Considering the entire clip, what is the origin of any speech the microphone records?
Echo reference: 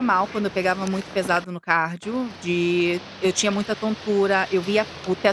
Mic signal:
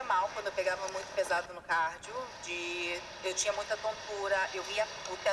echo only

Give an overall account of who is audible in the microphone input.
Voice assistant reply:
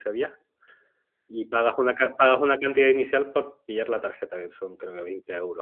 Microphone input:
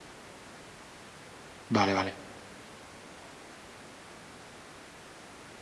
user only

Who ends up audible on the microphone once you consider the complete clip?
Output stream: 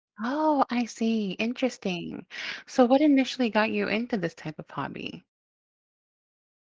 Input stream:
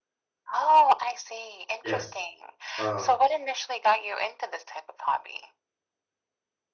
both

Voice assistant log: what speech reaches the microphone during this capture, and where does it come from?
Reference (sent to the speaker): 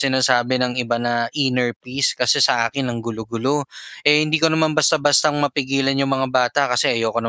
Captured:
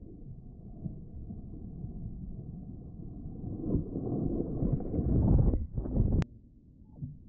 neither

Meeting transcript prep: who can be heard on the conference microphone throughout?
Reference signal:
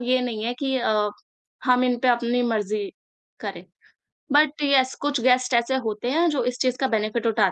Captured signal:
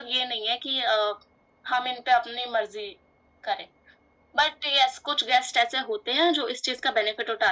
echo only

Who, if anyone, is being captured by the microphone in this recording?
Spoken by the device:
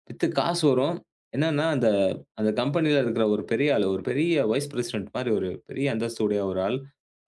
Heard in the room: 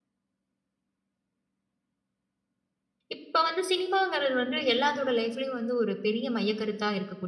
user only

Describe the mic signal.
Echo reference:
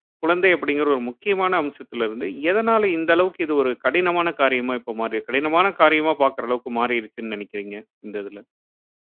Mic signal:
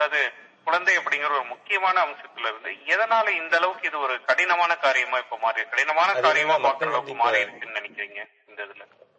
both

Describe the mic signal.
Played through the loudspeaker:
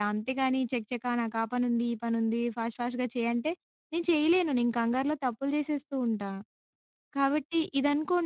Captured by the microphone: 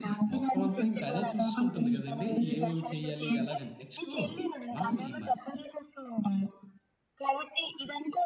both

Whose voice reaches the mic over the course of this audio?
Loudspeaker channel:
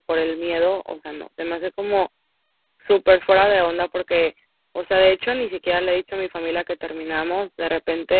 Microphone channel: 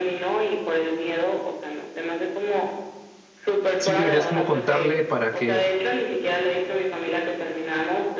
both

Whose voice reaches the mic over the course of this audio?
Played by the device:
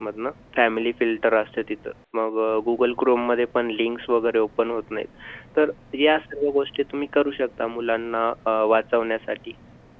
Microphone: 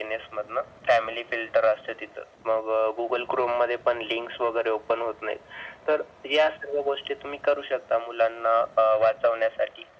echo only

